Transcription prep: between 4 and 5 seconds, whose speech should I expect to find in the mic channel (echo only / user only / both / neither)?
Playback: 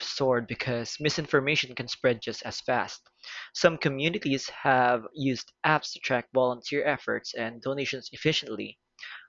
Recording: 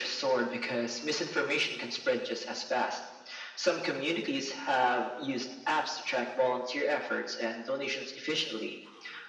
echo only